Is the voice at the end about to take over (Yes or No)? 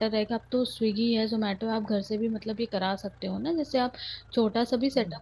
No